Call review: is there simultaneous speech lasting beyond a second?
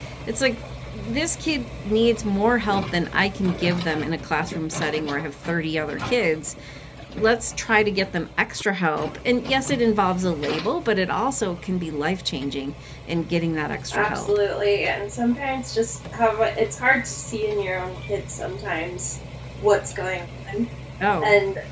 No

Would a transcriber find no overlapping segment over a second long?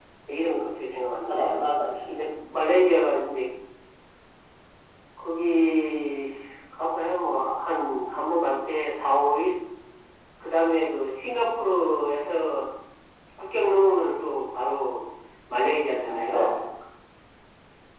Yes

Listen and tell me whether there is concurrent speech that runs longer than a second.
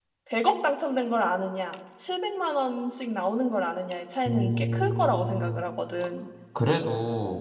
Yes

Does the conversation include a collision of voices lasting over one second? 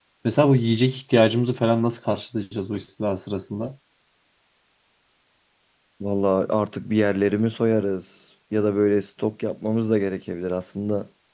No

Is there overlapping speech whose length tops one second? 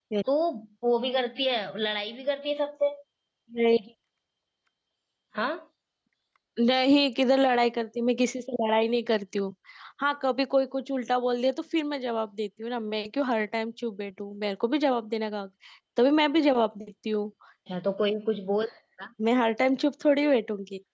No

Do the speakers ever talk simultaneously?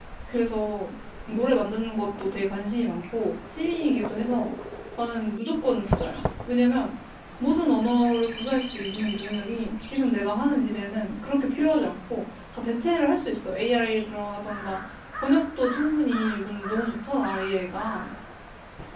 No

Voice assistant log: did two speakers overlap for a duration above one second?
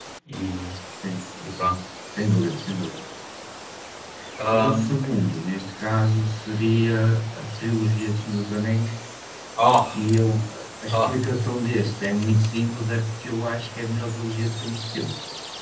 No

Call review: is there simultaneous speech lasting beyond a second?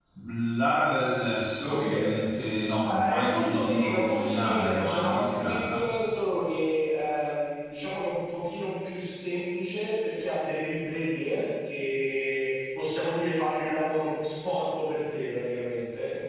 Yes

